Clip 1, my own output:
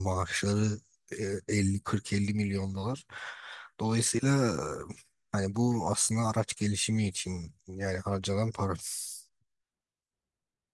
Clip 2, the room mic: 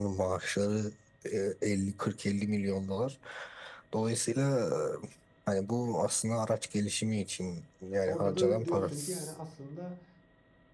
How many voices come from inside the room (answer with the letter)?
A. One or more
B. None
A